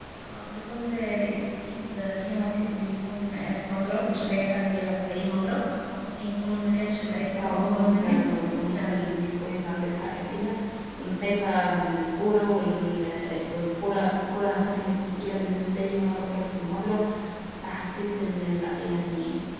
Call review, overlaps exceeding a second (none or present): present